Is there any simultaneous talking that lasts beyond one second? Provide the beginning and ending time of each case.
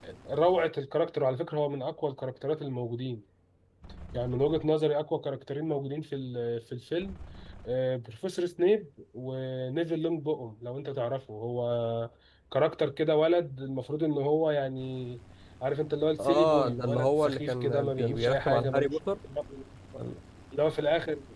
16.2-18.9

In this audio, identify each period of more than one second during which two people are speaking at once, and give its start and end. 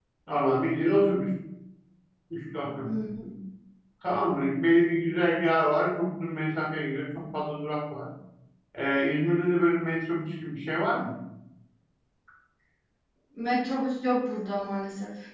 none

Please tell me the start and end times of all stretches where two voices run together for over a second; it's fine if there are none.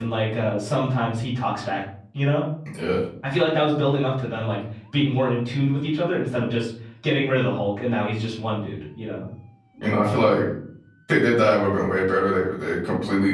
none

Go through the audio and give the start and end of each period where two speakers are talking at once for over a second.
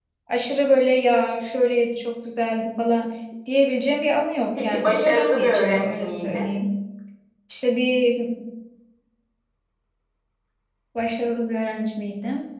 4.5-6.4

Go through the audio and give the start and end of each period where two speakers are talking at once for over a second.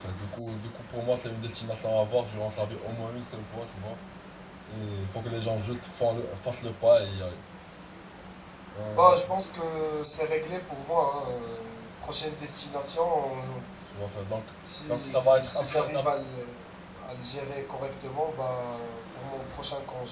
14.9-16.1

